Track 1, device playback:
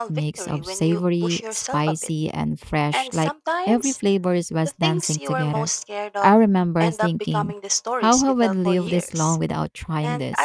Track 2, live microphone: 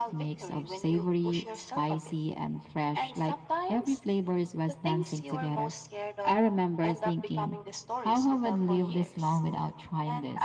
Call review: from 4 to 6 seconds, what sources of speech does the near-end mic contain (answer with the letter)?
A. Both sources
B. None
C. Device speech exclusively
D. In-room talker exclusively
C